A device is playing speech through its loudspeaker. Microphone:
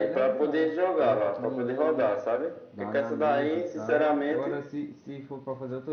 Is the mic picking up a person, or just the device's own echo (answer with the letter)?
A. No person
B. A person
B